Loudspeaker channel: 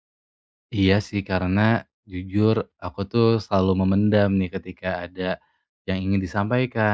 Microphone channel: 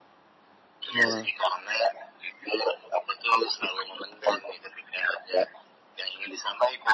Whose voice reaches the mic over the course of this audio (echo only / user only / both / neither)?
both